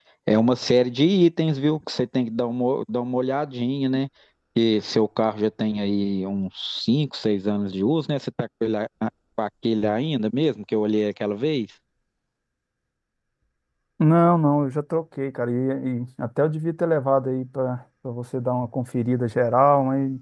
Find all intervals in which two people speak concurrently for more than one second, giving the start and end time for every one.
none

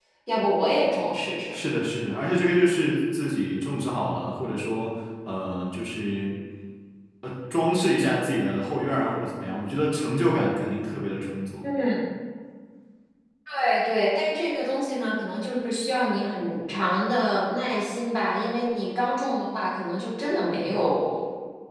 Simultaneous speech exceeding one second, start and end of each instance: none

